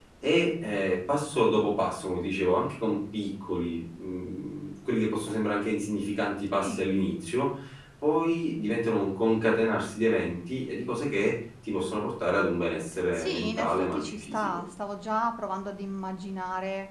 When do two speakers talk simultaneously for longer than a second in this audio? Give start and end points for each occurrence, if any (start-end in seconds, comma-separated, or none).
13.1-14.6